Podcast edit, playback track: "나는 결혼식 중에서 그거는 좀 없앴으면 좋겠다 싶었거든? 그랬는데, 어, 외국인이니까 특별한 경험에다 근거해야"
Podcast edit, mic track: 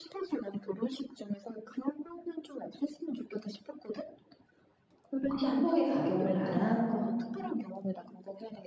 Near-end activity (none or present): present